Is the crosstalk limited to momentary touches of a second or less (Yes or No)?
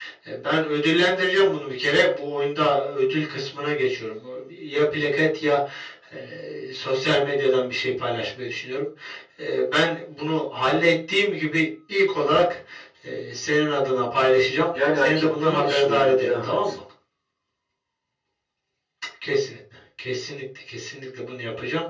No